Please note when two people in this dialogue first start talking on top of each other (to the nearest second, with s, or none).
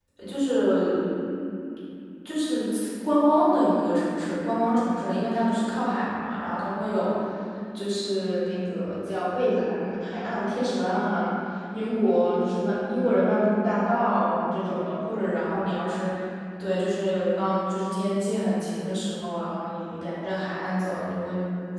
none